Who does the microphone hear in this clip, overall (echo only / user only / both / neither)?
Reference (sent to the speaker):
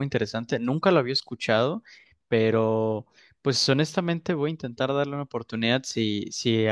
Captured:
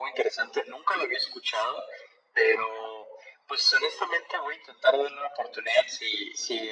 echo only